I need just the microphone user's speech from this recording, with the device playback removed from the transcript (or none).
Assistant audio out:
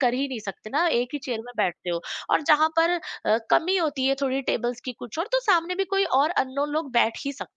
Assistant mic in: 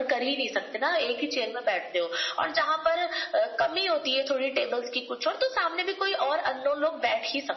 none